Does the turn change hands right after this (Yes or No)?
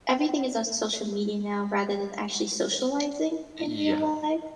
Yes